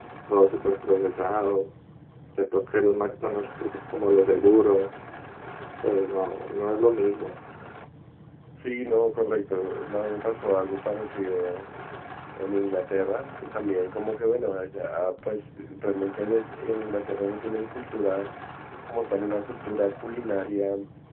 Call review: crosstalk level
none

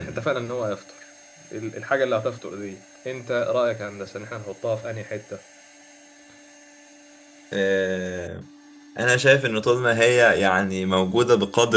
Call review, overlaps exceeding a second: none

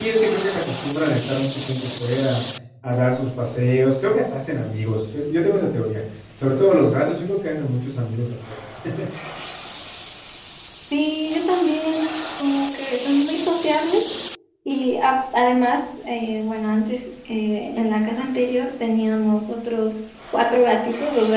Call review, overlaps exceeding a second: none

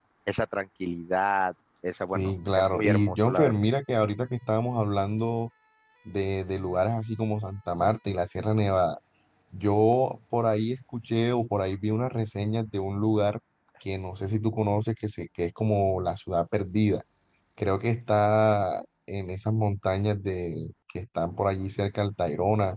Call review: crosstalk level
present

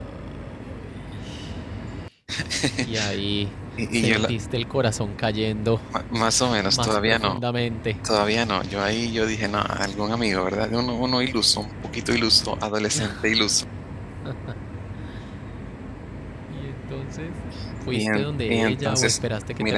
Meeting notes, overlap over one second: present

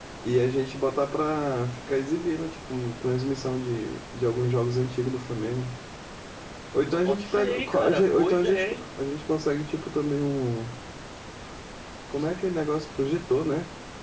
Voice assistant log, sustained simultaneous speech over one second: present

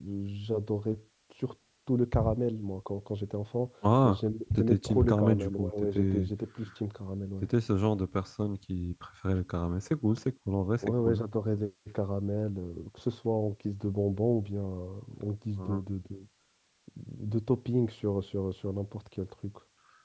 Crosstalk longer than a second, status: present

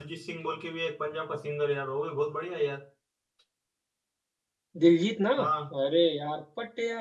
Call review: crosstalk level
none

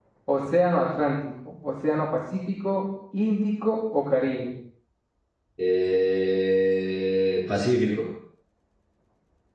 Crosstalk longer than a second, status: none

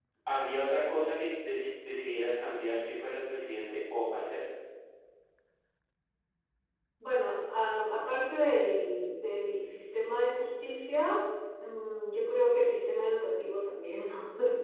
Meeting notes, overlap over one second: none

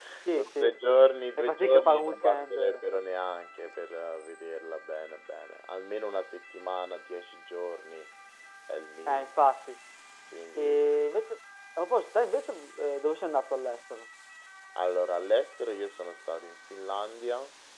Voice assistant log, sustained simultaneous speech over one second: present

